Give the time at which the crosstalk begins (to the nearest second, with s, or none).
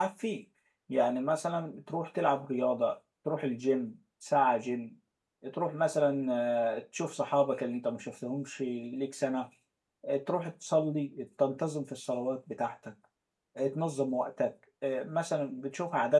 none